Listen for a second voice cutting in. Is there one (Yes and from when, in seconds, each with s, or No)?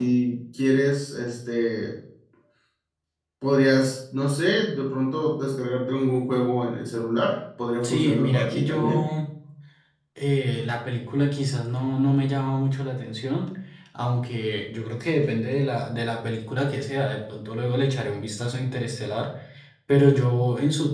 Yes, from 7.8 s